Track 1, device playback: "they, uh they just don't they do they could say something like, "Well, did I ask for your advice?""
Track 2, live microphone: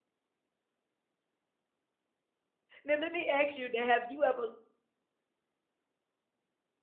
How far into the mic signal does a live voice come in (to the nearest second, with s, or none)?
3 s